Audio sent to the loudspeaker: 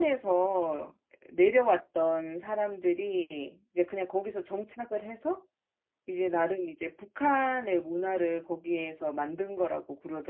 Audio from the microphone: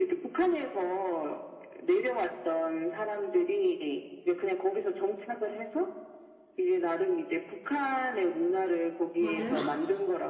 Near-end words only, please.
맞아요?

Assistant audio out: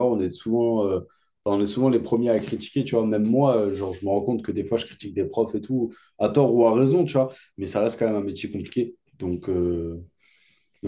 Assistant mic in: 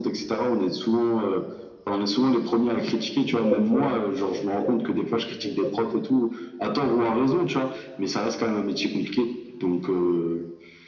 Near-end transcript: Donc ouais, handballeur professionnel. Puis après, j'ai vite compris que j'avais pas le niveau.

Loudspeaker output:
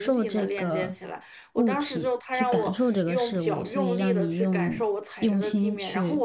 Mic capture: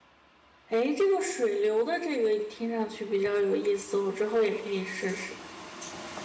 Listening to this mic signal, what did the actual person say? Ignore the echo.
哎，这个水流的这个听上去比较有意思，我之后也可以试试。

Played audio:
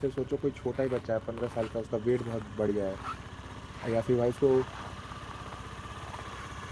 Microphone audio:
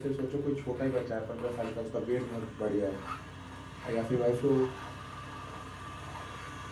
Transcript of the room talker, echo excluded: हम्म हम्म हम्म

